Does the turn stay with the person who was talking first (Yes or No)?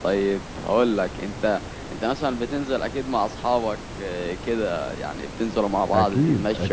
No